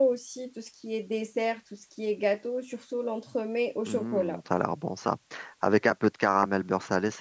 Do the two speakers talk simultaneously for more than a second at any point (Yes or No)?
No